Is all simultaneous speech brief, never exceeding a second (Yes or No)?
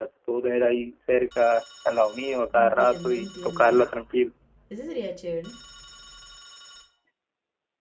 No